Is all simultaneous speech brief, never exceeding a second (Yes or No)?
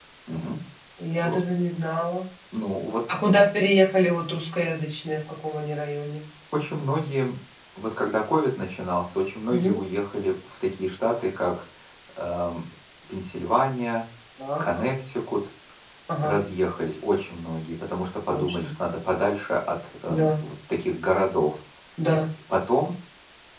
Yes